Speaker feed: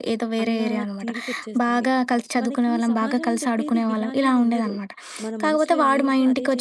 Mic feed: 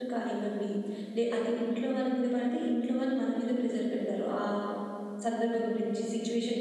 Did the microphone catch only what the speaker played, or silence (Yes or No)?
No